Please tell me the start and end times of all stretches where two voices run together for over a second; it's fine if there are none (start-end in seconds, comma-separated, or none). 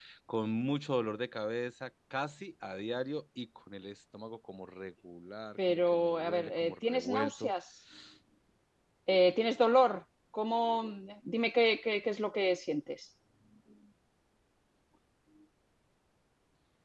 5.7-7.5